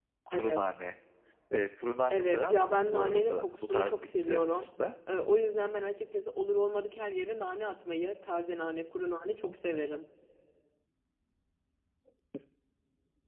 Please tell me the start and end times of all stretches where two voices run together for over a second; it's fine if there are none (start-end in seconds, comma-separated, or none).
2.1-4.7